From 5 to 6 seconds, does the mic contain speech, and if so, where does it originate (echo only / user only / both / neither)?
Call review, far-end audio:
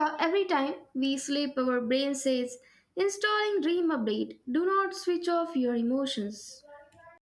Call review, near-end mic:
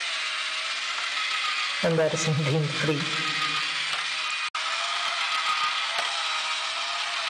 neither